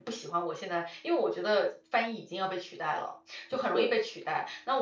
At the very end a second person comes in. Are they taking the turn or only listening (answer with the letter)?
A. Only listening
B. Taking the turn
A